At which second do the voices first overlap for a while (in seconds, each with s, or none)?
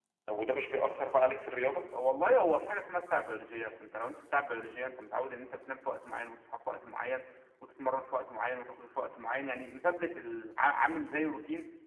none